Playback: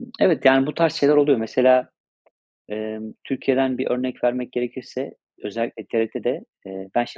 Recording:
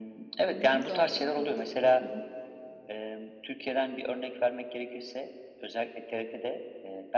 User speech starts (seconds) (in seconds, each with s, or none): 0.4 s